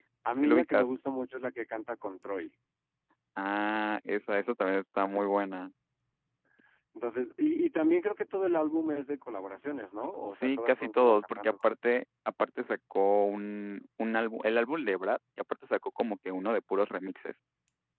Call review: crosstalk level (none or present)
present